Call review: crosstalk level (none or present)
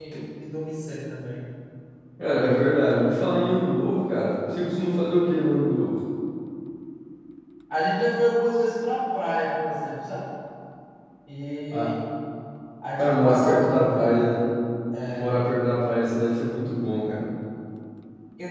present